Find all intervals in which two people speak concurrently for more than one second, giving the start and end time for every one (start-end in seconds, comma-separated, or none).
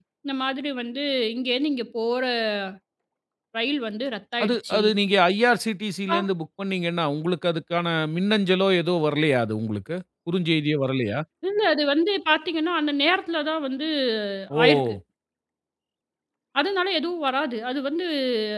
none